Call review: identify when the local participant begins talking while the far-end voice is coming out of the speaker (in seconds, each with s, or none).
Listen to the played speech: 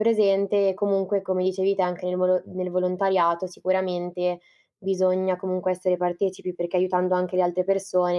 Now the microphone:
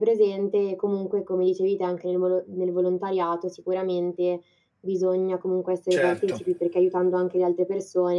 5.9 s